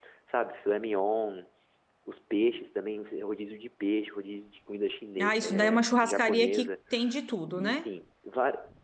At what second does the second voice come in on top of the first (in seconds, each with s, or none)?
5.2 s